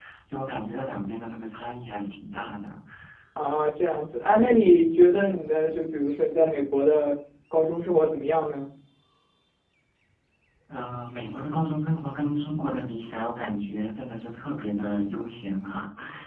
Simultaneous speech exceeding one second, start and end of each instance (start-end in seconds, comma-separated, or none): none